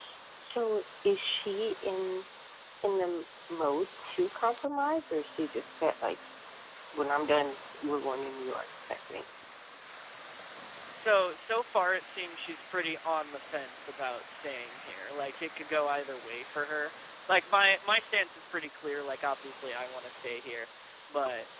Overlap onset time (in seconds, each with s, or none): none